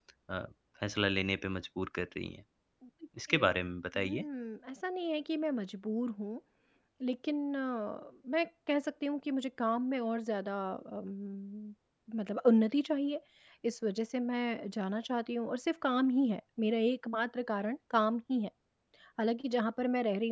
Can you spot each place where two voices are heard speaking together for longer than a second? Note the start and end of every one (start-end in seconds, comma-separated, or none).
none